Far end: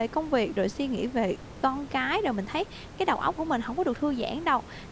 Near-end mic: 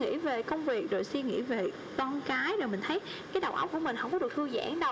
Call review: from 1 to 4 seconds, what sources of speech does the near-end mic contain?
echo only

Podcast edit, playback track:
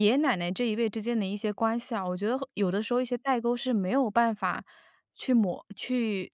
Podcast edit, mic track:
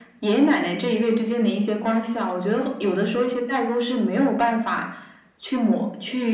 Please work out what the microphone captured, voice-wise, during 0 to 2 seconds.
echo only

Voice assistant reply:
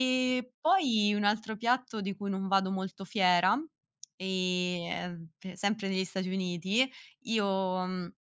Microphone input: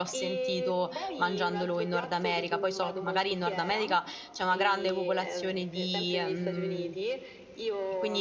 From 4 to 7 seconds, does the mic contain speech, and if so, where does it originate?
both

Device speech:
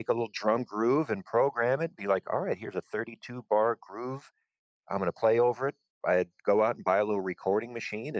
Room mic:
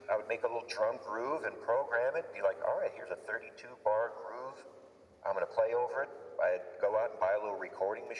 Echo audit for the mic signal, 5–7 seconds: echo only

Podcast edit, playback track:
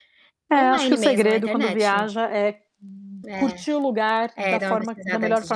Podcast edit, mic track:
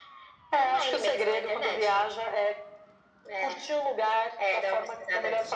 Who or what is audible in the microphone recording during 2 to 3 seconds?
echo only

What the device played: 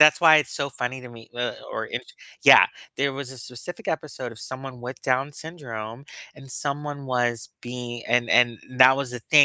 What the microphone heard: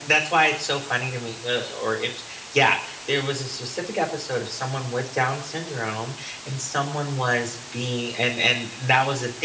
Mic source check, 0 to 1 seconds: echo only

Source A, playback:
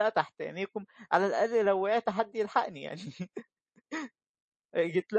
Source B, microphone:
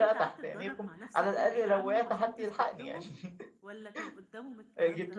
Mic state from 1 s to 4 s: both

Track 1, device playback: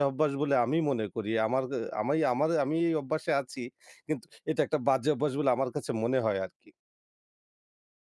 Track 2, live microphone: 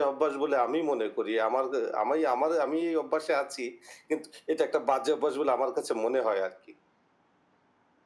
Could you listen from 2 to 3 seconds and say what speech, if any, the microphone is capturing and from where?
echo only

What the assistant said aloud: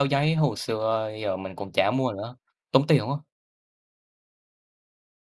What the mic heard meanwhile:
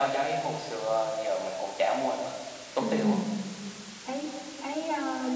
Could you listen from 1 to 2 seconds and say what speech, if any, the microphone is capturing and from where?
echo only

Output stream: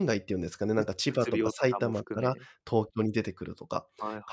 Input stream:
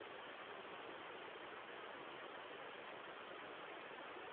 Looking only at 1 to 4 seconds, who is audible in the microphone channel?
neither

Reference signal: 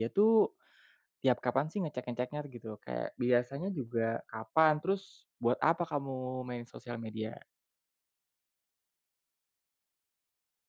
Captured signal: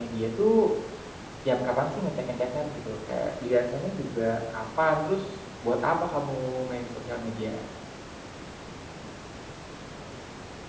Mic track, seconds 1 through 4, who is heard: echo only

